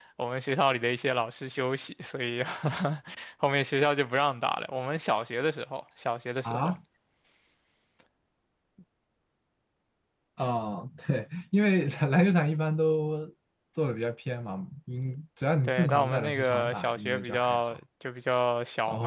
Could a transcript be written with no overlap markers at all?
No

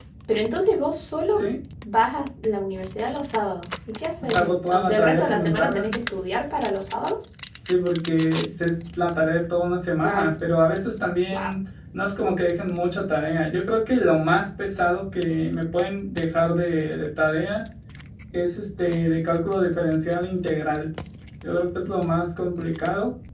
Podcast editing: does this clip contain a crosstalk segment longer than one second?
Yes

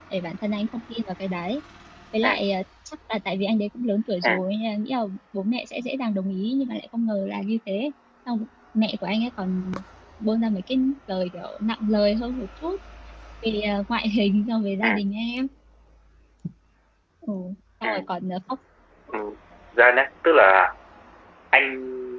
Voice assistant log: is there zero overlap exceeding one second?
Yes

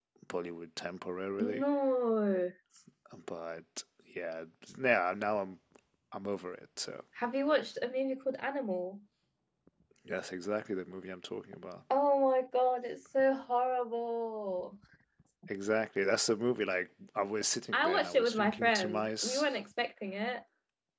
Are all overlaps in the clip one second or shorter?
No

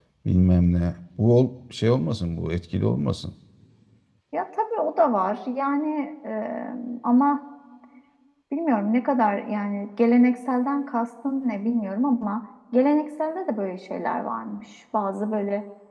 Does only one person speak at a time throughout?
Yes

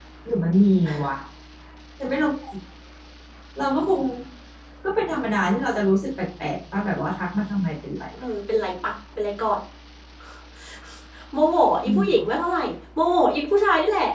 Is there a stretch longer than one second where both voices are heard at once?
No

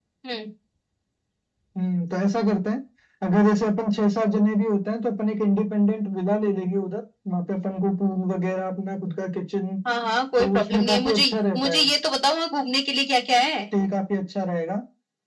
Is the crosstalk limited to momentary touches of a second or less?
No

